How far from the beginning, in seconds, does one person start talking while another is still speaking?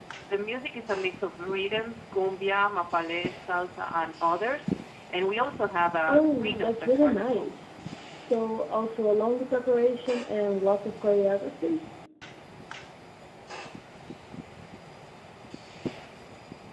6 s

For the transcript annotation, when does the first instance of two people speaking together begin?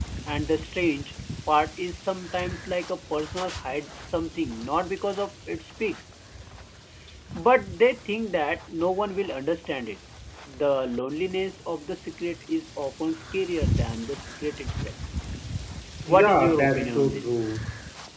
16 s

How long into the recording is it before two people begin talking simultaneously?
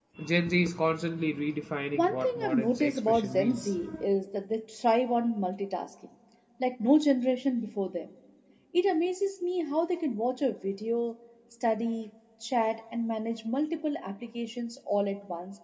2 s

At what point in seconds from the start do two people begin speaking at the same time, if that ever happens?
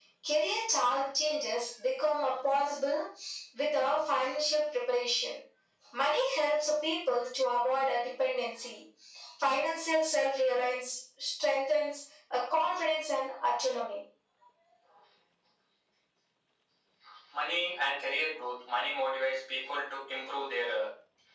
none

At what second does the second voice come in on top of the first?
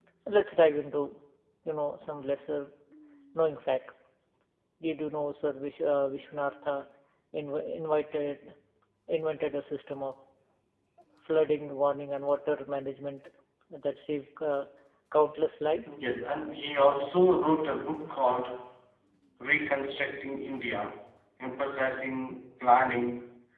none

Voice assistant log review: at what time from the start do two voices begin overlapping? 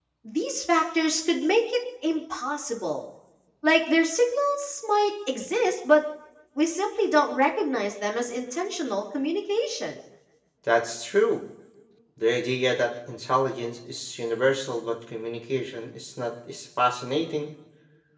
none

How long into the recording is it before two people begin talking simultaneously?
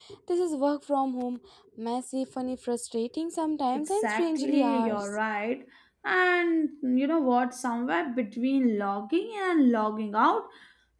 4 s

